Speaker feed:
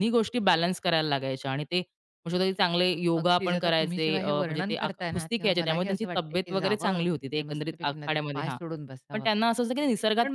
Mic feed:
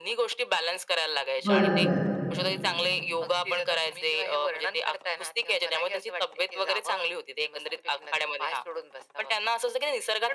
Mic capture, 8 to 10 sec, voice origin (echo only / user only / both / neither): echo only